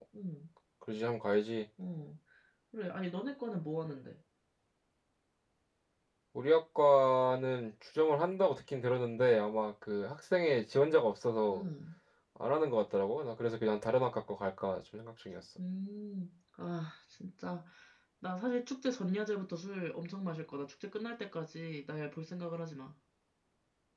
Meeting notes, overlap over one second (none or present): none